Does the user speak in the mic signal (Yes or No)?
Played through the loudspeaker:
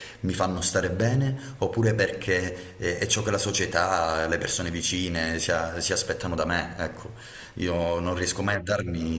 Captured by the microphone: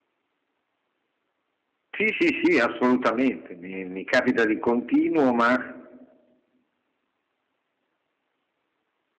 Yes